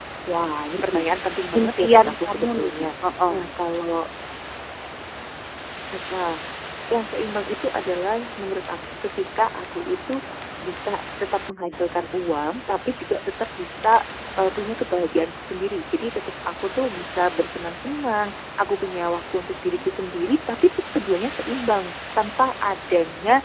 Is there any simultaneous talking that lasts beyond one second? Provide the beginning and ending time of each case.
1.6-2.9

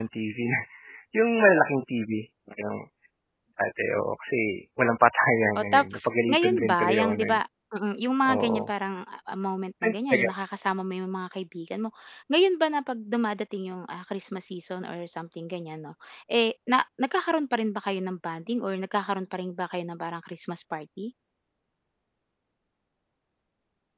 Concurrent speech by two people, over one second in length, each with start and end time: 5.6-7.4

